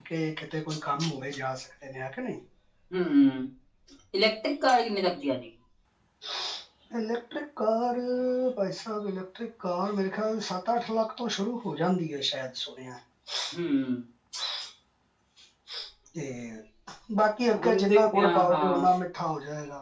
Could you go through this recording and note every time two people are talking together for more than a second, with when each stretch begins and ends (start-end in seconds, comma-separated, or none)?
17.6-18.9